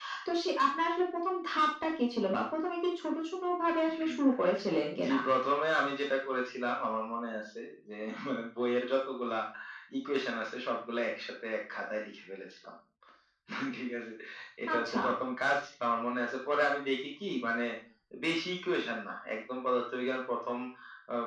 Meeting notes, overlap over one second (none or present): none